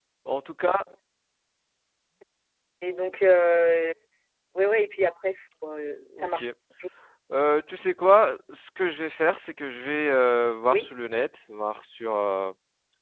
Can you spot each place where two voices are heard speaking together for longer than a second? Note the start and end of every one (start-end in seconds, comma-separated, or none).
none